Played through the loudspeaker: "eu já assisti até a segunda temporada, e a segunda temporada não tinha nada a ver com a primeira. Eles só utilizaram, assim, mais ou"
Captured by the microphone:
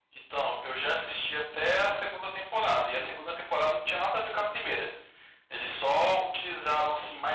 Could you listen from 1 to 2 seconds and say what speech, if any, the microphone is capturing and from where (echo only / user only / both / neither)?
echo only